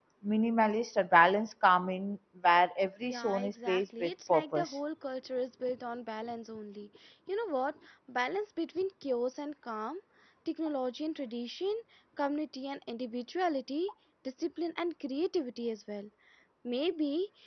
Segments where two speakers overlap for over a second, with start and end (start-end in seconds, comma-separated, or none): 3.0-4.8